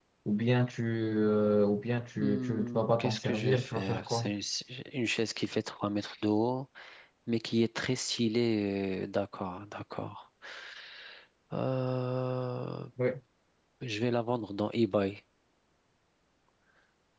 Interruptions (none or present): present